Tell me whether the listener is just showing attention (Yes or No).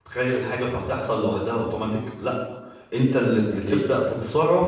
Yes